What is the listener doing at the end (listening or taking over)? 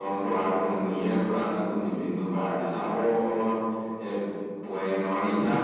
listening